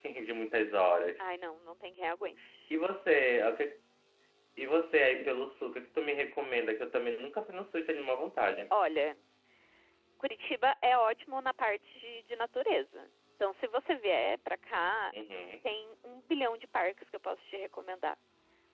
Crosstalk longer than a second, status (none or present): none